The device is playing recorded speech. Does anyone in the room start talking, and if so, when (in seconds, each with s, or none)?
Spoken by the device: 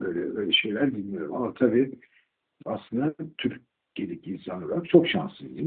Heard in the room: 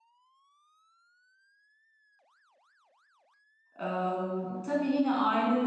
3.8 s